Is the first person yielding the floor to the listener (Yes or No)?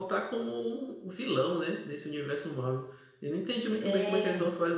No